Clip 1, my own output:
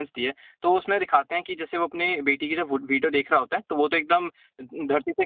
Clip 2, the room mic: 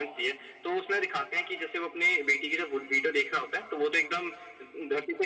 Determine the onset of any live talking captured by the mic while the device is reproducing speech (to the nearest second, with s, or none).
none